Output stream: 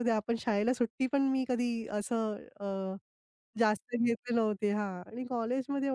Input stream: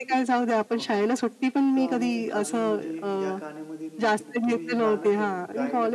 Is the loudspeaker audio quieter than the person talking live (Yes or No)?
No